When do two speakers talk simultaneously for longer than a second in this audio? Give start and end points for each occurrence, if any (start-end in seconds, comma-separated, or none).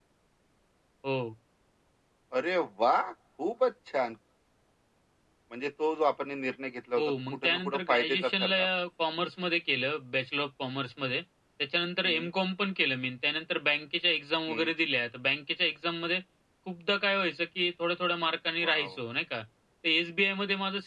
7.0-8.6